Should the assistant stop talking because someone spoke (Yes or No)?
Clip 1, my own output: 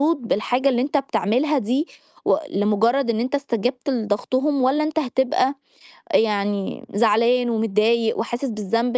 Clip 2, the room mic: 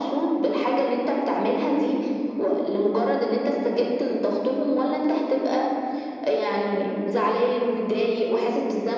No